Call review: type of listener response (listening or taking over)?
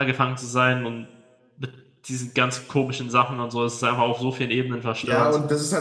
taking over